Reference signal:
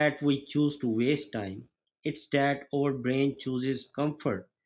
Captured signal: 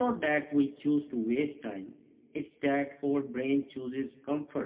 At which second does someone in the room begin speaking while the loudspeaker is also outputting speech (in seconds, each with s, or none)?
none